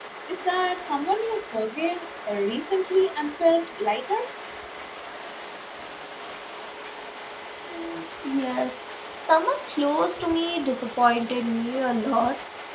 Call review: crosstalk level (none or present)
none